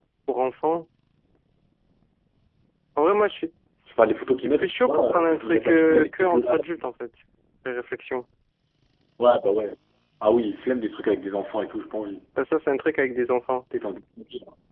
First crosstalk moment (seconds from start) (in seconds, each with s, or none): 4.6 s